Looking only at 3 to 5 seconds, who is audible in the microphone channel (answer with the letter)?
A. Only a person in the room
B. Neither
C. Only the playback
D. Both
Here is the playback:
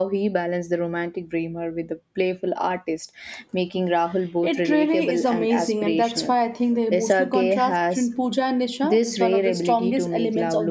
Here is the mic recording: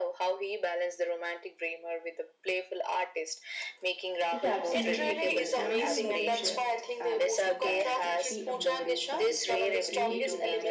D